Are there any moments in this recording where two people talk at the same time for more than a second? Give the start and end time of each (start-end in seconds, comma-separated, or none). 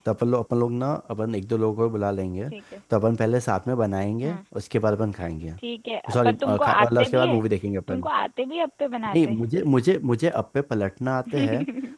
6.1-7.4